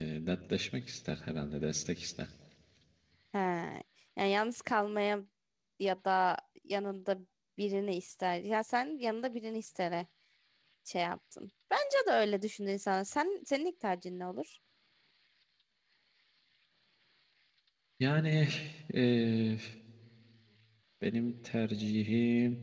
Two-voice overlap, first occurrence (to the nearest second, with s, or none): none